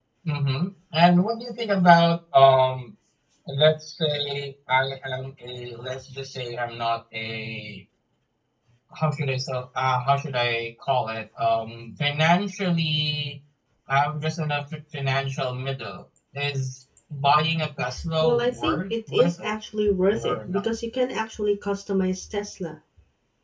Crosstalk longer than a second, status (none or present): present